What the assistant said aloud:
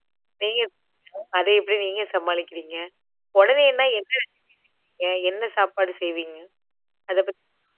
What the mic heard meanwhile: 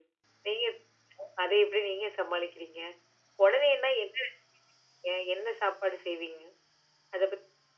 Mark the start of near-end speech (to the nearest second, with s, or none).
none